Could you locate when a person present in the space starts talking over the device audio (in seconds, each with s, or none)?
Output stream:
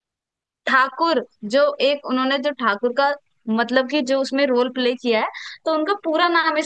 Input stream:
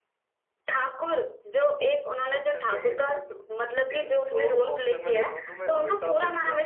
2.3 s